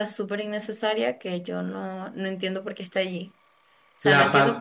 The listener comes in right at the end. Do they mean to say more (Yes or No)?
Yes